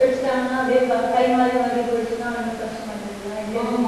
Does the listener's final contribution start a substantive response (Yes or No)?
Yes